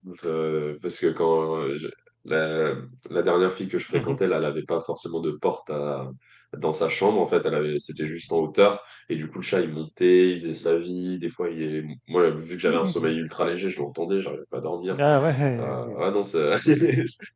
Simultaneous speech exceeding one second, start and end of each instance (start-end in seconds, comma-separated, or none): none